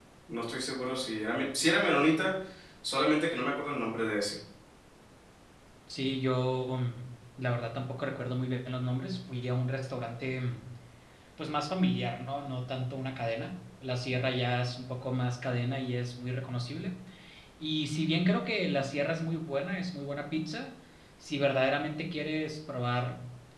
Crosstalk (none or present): none